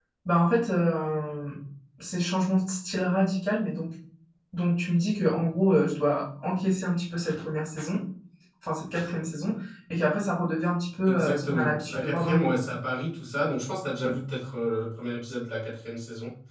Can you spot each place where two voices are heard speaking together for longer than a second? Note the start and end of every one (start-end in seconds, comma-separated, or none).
11.1-12.5